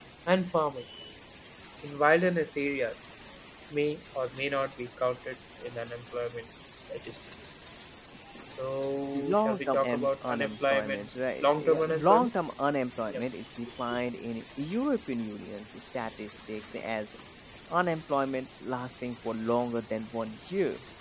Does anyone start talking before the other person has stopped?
Yes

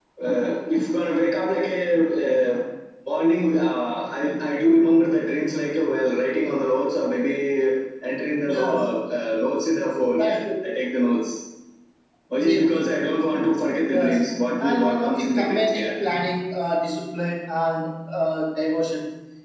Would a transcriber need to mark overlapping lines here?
Yes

